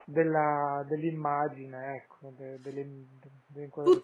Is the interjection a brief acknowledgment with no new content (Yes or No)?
No